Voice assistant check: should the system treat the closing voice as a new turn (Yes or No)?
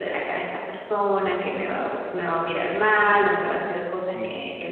No